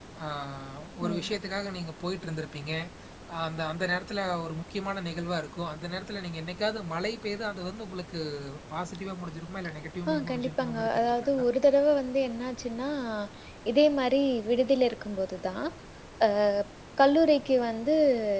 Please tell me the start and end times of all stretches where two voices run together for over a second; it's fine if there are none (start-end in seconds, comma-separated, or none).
10.1-11.4